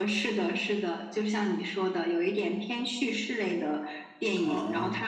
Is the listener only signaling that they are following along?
Yes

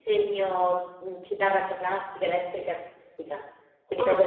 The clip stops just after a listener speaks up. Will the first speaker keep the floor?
Yes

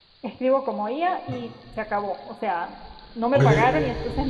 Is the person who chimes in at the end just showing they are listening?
Yes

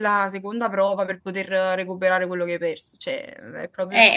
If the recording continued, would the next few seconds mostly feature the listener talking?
Yes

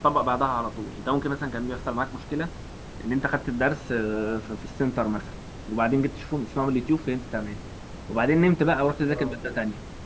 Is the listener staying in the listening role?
Yes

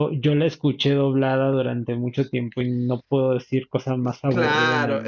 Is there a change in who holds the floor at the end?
Yes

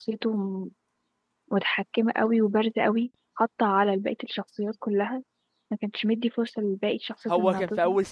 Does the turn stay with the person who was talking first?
No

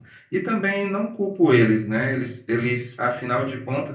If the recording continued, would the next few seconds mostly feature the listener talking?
No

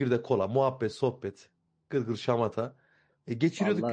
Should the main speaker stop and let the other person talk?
No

